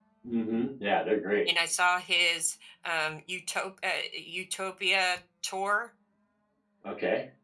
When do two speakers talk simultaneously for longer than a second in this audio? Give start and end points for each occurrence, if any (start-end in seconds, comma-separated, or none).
none